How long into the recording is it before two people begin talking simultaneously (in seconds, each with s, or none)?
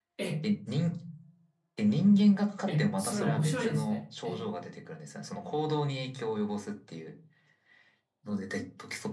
2.7 s